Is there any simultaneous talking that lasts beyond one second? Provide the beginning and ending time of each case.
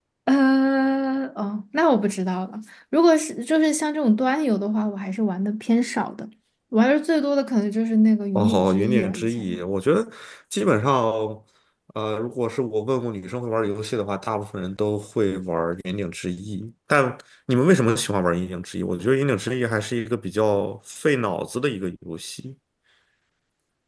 8.4-9.6

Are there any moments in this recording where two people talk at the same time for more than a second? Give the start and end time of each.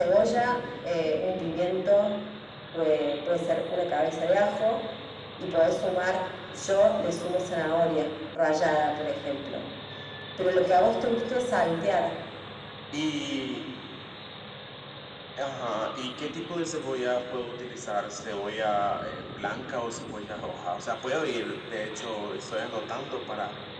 none

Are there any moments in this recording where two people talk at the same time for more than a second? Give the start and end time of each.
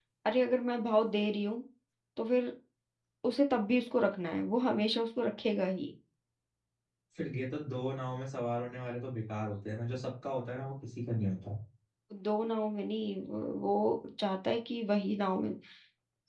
none

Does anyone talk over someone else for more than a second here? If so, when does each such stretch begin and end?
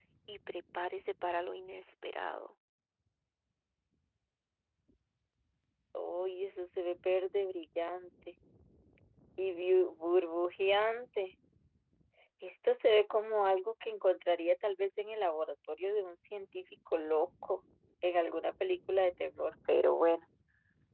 none

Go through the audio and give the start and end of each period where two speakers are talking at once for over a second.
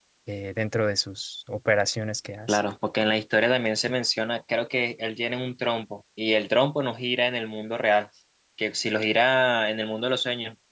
none

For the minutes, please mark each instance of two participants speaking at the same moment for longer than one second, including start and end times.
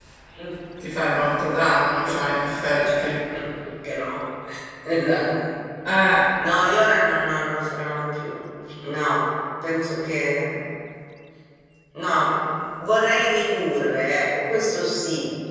none

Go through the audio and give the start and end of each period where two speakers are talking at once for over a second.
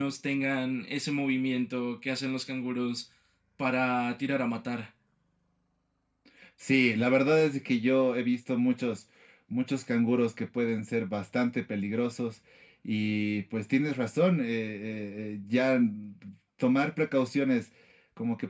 none

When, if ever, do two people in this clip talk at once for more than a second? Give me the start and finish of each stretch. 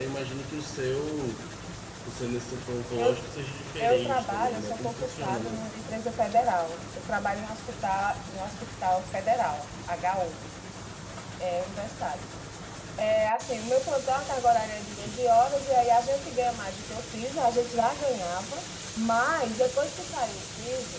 3.8-5.8

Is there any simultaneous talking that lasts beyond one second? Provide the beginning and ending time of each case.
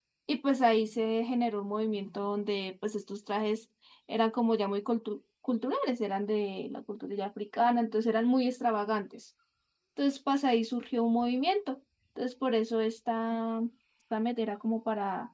none

